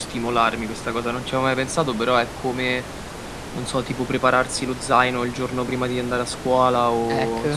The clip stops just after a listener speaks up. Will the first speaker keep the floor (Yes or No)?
Yes